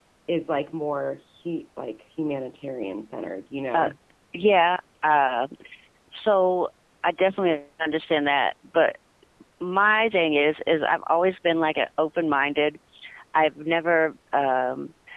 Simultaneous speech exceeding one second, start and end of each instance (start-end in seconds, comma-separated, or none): none